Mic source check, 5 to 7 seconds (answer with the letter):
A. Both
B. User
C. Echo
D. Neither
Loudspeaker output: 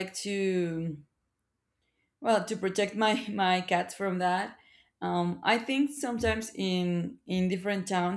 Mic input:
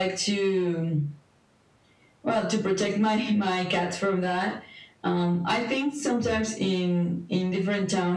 C